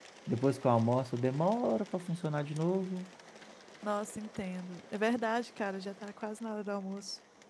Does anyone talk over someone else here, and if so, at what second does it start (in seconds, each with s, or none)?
none